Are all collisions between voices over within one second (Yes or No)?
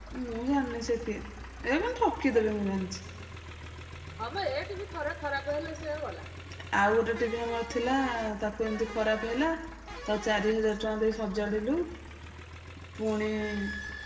Yes